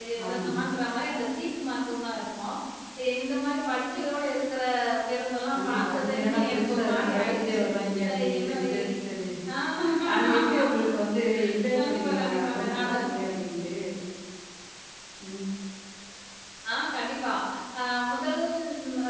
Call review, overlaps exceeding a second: present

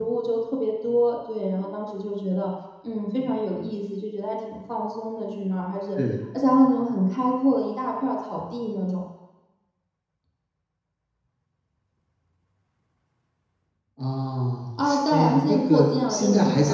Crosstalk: present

